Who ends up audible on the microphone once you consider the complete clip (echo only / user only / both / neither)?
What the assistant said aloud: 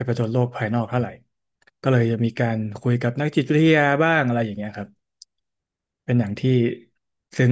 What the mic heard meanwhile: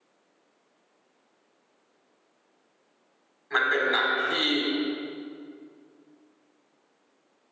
user only